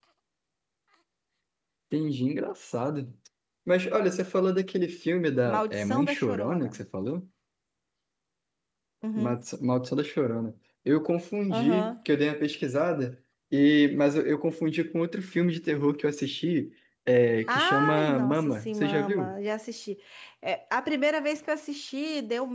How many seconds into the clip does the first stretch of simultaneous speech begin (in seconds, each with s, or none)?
5.5 s